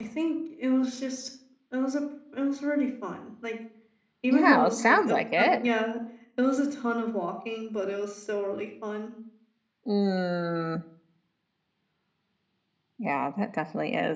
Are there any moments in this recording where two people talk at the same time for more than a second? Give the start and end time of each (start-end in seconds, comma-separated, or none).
4.3-5.5